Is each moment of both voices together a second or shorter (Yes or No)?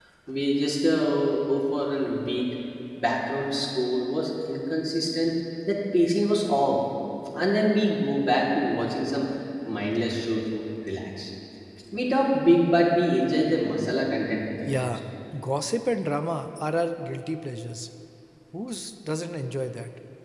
Yes